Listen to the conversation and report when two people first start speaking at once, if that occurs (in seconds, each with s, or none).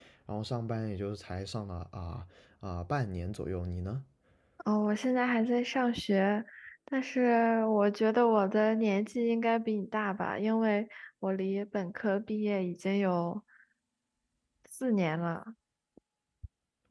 none